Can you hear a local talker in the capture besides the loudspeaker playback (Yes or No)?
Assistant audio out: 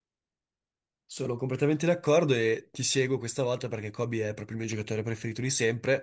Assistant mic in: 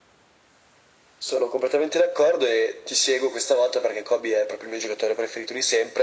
No